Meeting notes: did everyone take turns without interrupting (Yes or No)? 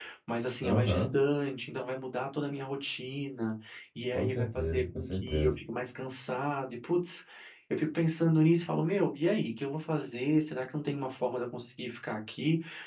No